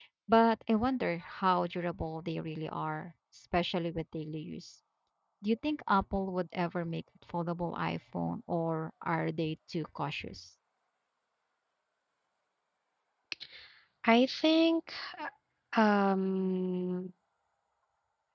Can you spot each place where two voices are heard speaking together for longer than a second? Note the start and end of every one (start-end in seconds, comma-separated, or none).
none